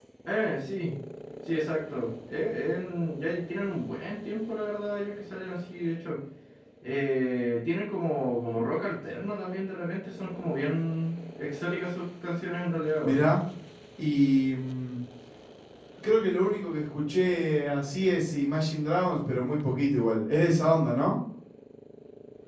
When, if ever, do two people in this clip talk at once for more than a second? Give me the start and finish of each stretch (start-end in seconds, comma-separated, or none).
none